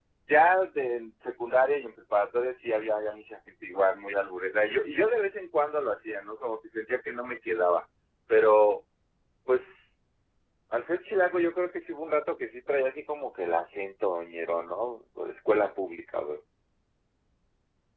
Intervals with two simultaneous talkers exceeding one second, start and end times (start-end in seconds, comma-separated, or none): none